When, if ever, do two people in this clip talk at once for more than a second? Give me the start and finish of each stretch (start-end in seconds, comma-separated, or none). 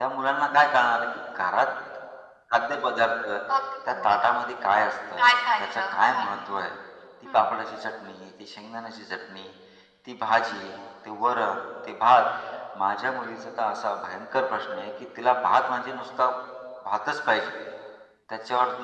5.2-6.5